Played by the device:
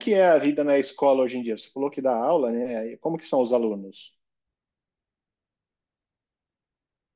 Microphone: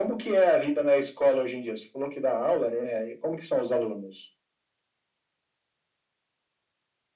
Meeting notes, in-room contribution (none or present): none